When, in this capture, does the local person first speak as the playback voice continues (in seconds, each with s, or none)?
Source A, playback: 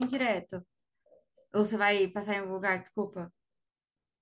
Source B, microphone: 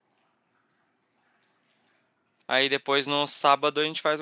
2.5 s